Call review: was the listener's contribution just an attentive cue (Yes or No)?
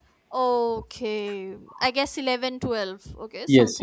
No